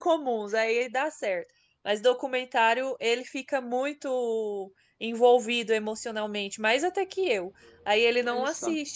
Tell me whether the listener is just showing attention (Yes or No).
Yes